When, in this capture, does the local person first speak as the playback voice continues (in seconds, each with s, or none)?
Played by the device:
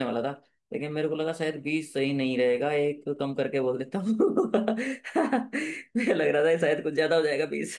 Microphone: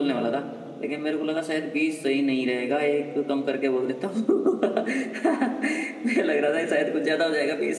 none